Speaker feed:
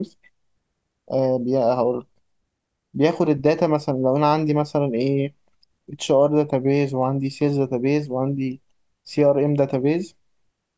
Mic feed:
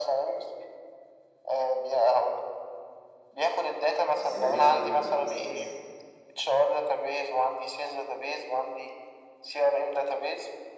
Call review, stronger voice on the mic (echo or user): echo